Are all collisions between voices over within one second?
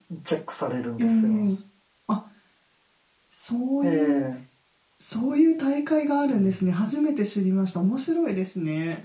Yes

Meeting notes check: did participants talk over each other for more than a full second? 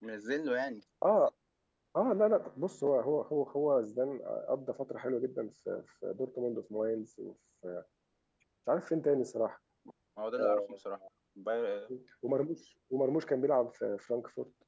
No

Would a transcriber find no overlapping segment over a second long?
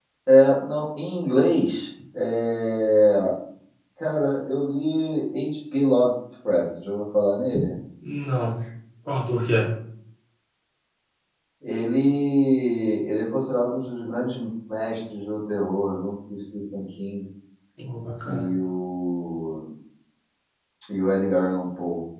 Yes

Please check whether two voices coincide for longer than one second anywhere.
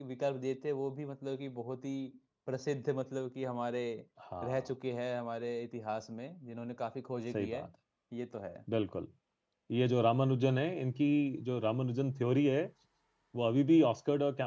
No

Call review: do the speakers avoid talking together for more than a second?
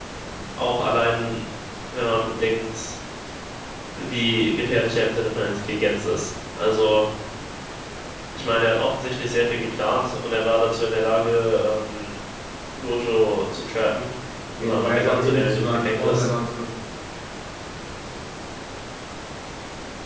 No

